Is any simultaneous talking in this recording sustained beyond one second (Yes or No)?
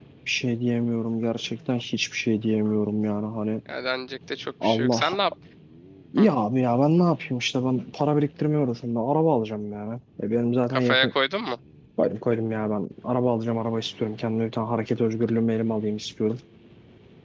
No